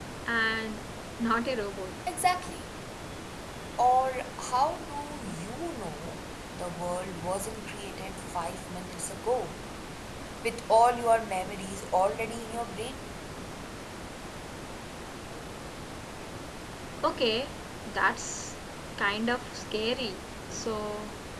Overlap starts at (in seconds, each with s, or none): none